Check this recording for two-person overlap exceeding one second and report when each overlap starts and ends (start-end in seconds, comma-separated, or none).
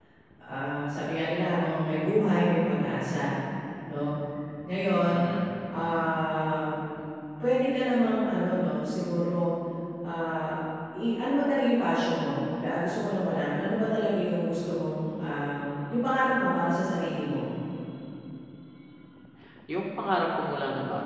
none